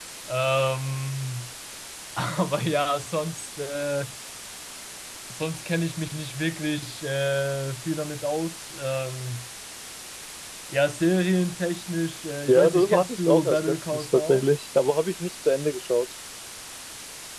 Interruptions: present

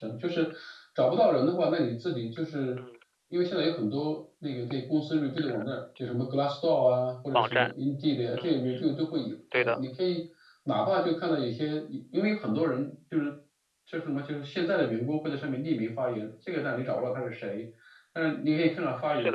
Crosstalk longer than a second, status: none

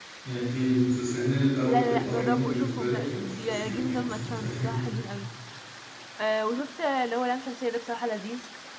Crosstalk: present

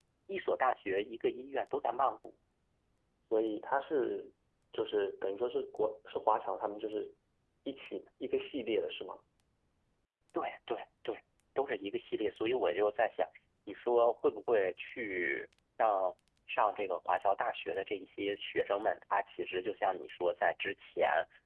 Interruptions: none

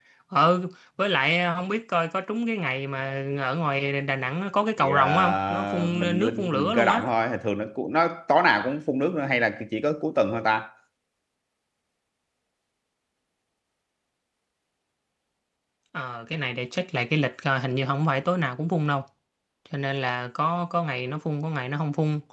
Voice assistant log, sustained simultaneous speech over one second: present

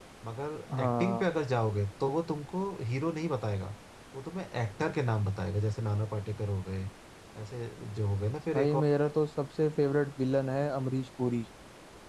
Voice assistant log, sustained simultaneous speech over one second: none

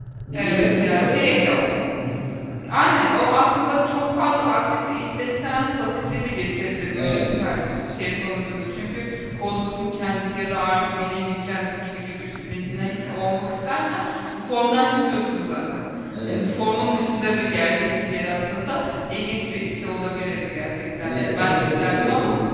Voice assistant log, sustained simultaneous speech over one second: present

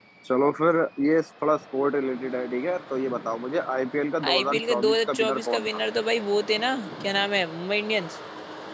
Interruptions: present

